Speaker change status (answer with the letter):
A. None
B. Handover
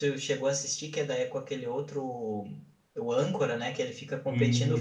A